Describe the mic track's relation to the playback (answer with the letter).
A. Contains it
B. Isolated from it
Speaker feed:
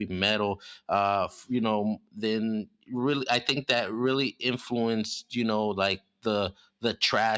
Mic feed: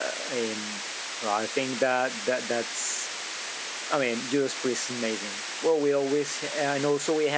B